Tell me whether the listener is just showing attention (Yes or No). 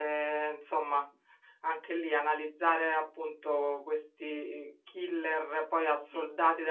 Yes